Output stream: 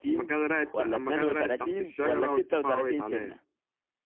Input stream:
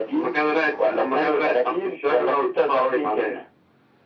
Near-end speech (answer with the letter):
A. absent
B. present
A